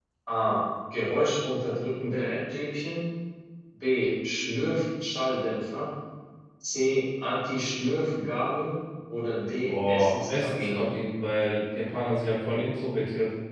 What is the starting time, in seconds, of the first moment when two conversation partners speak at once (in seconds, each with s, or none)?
9.6 s